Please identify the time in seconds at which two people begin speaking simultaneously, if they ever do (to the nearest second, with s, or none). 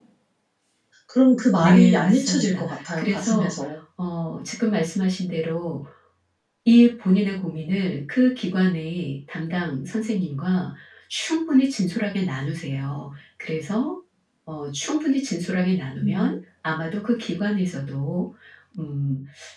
2 s